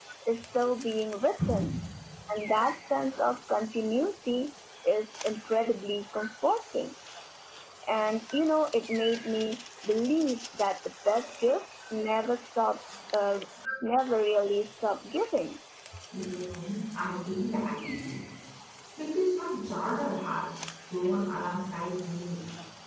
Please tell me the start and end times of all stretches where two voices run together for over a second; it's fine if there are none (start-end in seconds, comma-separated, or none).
none